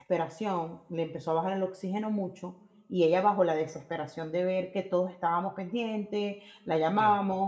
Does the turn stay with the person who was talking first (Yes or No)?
Yes